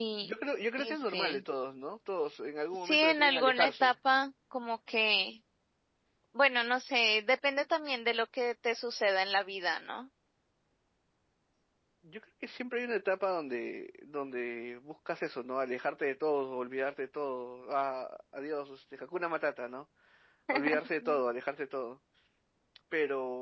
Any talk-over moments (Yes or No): Yes